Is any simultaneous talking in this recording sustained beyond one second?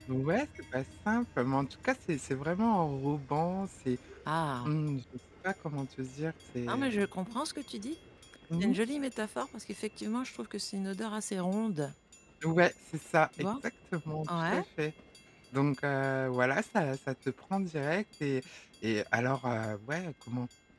No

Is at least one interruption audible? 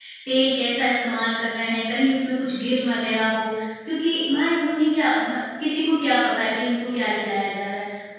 No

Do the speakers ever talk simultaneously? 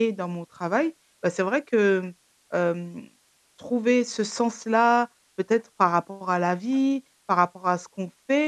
No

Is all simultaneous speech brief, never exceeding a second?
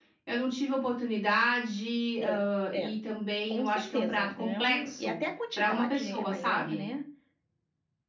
No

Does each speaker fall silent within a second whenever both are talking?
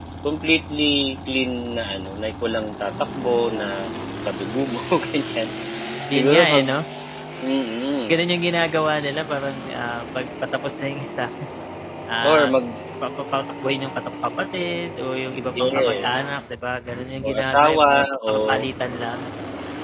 No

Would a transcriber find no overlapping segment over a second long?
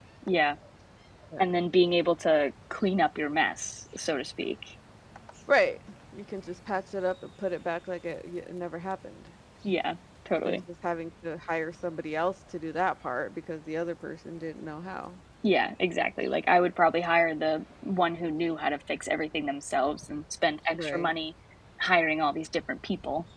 Yes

